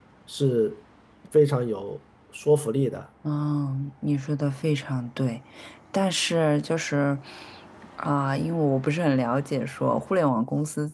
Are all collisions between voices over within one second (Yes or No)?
Yes